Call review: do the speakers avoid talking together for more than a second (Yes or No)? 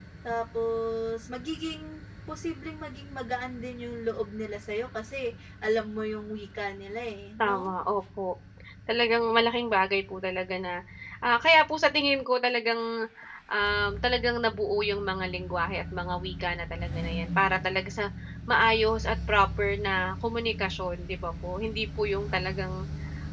Yes